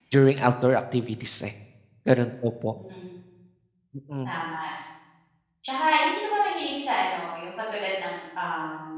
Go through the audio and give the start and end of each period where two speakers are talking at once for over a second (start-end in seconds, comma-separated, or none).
none